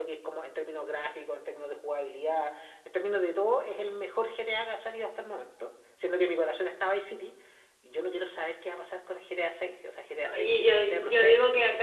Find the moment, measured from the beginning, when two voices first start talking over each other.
10.1 s

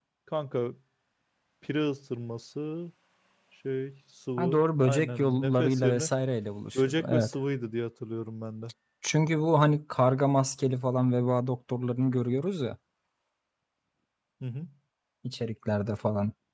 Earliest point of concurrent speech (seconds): 4.4 s

